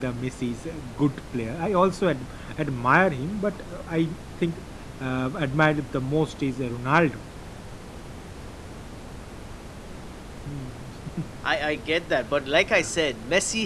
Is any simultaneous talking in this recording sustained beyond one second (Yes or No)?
No